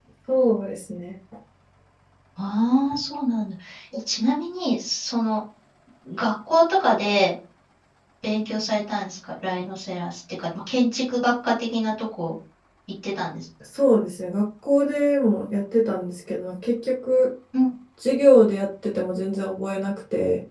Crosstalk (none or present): none